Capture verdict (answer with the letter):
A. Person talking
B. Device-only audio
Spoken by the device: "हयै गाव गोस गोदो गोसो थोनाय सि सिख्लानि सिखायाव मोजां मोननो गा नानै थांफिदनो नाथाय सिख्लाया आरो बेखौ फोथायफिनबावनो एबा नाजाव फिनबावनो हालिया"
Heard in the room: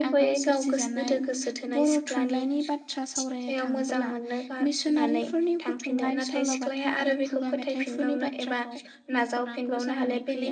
A